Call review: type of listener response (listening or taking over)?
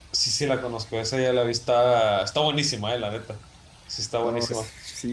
taking over